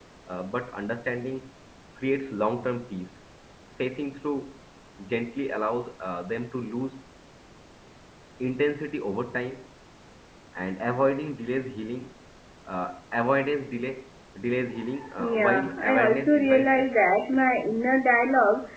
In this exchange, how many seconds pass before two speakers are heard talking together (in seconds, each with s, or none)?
15.2 s